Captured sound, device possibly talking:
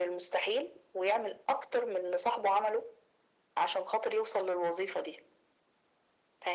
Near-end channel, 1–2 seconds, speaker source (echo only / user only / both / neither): echo only